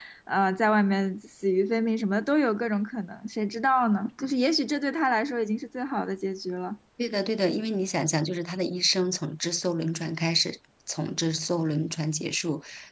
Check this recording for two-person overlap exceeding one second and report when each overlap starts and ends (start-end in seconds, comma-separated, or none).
none